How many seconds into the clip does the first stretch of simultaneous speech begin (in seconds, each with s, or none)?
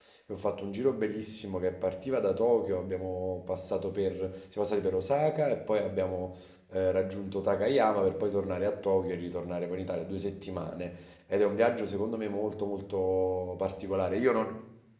none